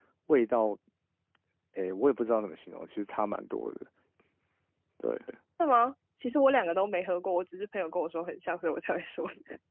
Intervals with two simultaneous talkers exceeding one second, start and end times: none

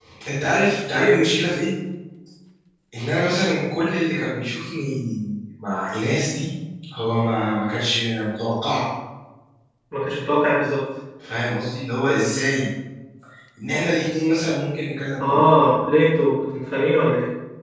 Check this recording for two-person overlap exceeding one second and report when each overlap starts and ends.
none

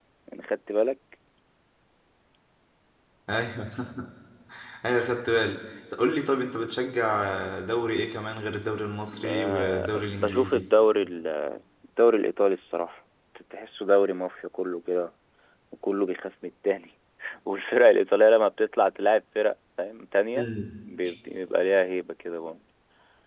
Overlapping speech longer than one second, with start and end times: 9.3-10.6

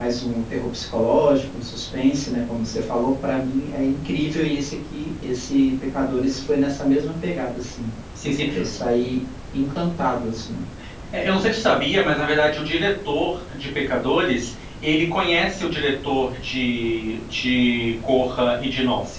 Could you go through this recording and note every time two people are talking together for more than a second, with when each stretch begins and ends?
none

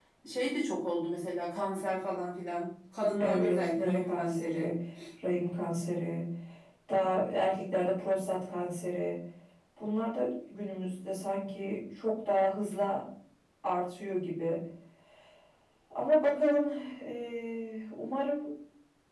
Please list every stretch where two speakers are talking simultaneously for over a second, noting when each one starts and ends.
3.2-4.7

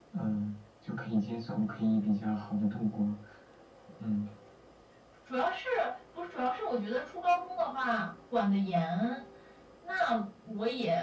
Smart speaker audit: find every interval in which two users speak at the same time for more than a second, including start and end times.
none

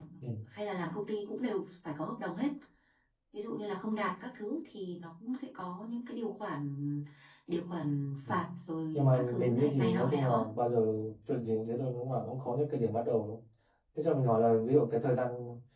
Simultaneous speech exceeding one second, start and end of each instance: 8.9-10.5

